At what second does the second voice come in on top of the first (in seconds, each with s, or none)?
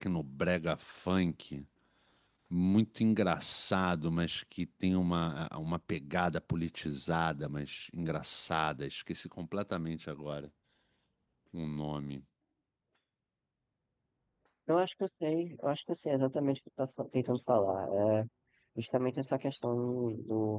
none